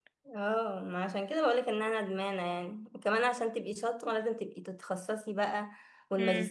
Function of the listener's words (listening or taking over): listening